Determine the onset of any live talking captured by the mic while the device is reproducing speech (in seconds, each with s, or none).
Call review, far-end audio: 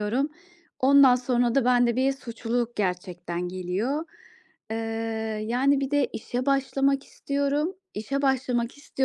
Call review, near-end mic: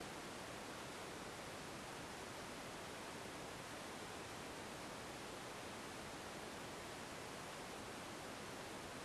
none